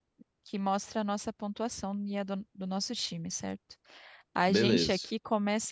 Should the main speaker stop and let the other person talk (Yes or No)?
No